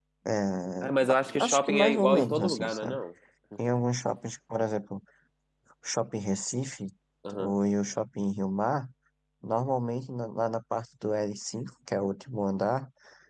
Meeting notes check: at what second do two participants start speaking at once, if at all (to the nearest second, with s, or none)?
1 s